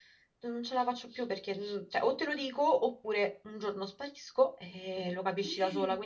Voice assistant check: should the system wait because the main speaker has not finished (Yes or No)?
Yes